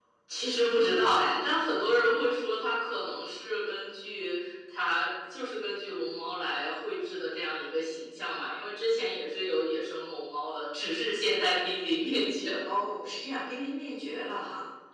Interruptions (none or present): none